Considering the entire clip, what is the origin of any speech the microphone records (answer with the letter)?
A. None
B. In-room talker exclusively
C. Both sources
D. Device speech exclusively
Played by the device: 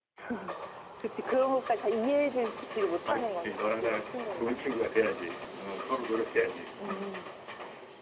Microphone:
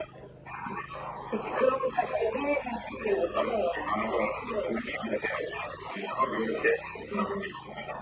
D